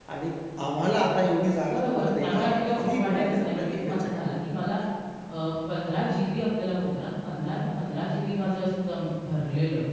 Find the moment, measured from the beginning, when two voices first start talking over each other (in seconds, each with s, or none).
1.7 s